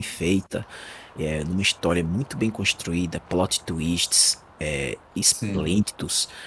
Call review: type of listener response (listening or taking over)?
listening